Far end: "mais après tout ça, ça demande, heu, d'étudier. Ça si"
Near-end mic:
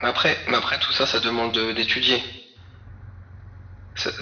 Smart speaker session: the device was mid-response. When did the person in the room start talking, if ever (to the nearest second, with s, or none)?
none